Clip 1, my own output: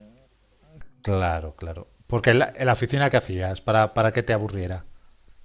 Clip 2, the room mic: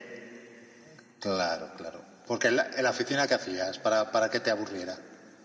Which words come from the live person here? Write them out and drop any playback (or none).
none